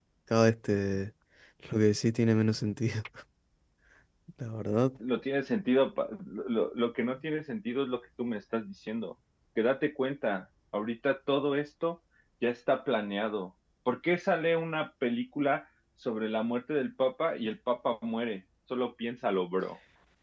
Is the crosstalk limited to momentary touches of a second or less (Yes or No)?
Yes